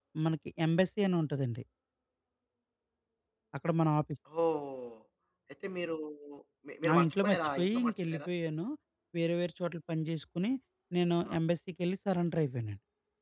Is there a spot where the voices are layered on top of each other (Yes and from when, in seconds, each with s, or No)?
Yes, from 6.9 s